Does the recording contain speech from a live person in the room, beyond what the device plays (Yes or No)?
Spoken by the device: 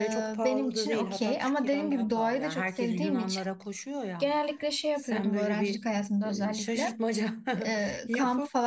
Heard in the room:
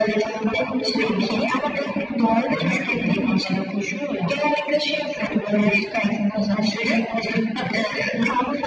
No